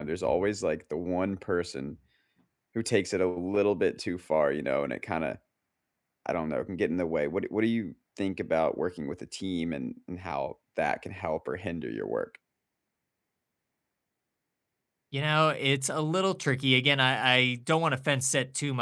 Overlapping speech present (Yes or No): No